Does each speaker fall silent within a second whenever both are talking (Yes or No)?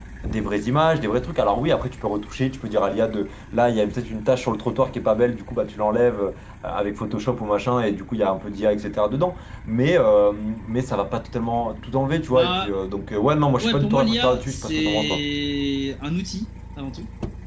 No